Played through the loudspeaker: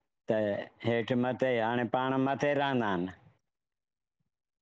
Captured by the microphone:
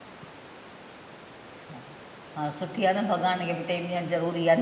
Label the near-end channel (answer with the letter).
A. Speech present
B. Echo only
A